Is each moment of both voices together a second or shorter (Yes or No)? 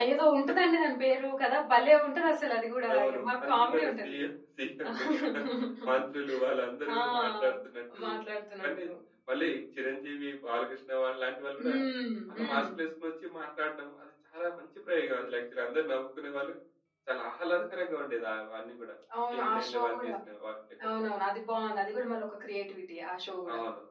No